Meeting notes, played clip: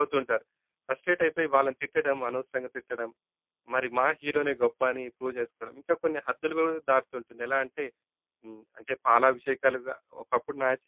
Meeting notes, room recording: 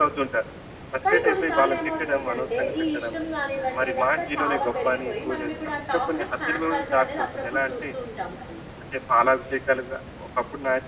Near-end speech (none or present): present